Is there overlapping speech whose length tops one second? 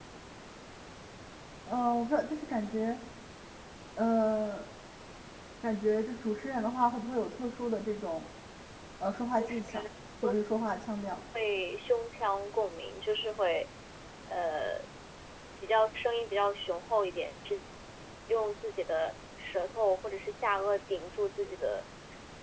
No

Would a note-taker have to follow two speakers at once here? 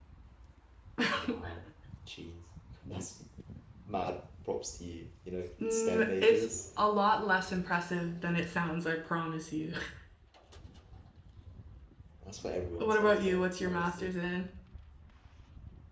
Yes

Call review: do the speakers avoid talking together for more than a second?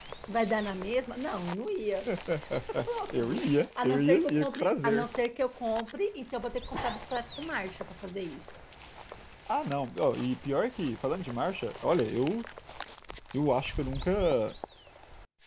No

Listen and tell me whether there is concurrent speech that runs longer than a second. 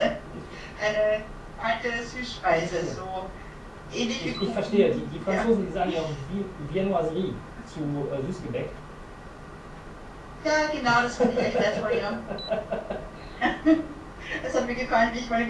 Yes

